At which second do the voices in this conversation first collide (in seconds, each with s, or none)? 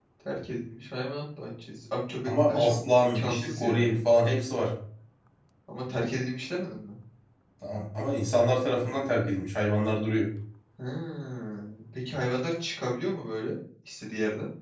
2.2 s